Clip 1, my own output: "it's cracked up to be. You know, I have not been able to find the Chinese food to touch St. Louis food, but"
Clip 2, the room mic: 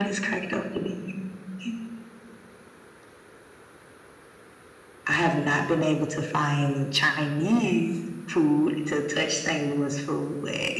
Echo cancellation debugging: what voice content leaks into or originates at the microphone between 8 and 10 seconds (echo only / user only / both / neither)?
echo only